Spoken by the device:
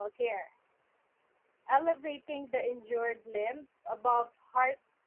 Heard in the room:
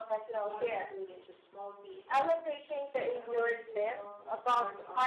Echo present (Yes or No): Yes